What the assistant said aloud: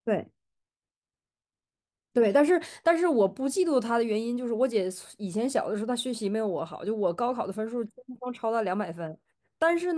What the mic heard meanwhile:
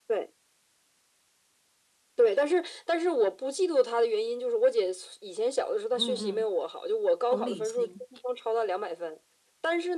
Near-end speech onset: 5.9 s

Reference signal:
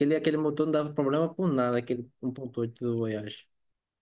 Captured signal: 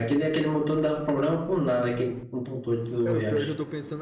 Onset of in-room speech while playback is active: 3.0 s

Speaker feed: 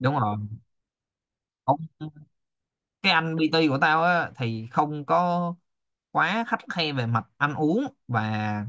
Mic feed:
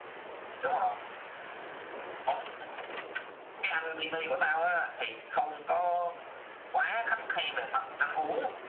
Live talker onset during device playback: none

